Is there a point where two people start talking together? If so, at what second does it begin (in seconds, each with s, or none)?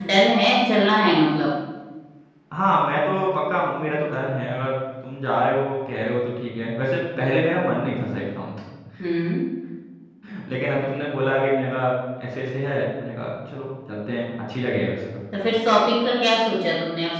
none